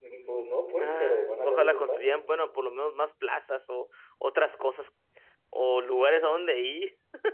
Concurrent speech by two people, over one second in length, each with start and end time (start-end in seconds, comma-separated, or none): 0.8-2.2